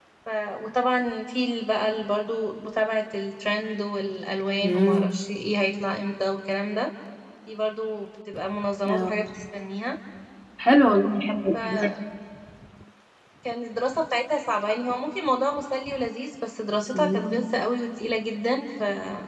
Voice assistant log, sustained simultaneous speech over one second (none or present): none